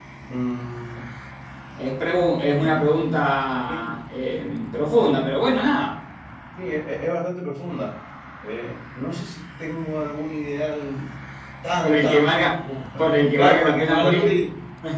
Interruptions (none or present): present